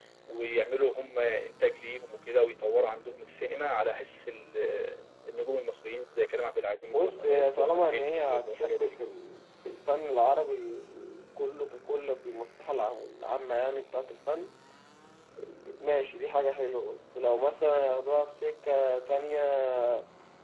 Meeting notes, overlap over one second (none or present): present